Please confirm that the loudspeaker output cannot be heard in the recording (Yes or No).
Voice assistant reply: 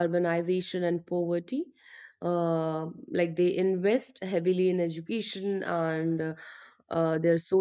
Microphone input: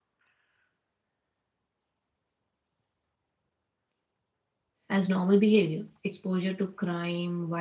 Yes